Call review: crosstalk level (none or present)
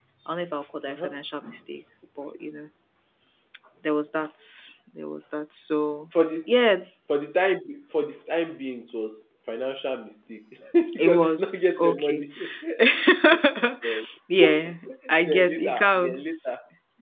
present